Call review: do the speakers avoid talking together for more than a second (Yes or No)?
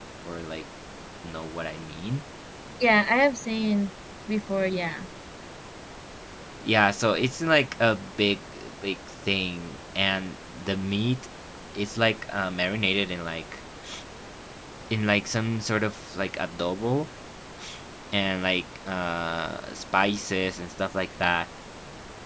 Yes